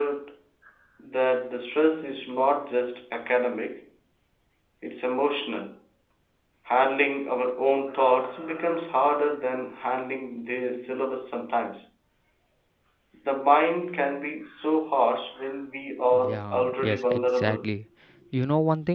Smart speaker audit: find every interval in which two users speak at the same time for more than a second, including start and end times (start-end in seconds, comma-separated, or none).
16.1-17.7